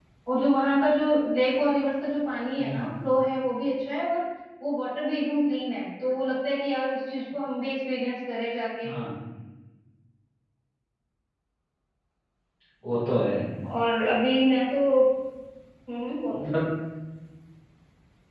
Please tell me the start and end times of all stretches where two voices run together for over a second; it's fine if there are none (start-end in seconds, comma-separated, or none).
none